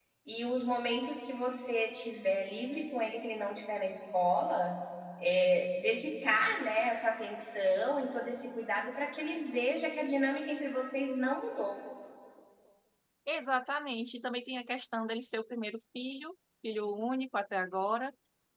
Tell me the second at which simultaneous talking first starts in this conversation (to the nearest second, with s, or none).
none